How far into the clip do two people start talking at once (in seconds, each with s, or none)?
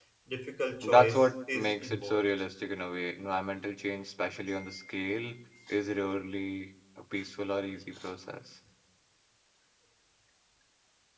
0.8 s